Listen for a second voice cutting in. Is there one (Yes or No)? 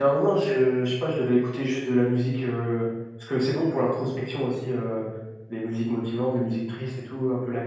No